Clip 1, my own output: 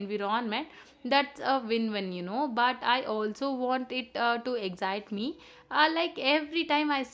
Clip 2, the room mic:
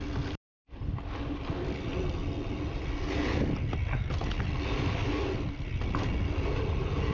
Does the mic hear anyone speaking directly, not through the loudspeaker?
No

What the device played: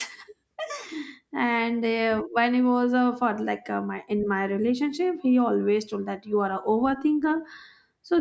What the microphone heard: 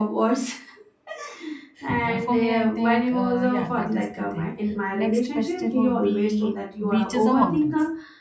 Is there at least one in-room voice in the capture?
Yes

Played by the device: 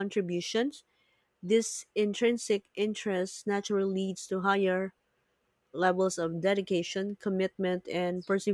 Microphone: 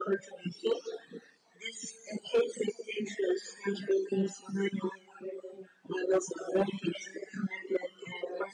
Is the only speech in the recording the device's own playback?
Yes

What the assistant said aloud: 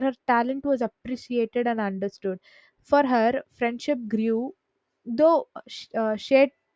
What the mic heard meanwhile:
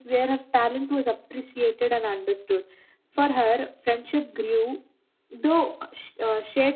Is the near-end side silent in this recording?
Yes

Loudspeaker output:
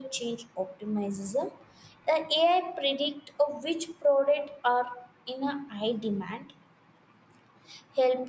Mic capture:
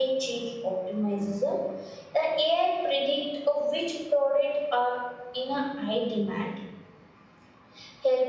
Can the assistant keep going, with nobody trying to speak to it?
Yes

